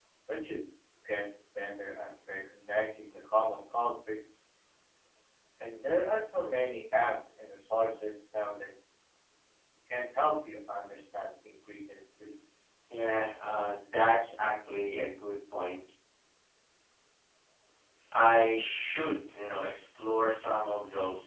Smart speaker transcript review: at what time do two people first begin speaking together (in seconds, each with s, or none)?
none